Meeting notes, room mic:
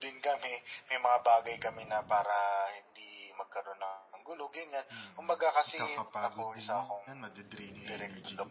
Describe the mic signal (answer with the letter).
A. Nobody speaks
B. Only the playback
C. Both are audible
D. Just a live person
C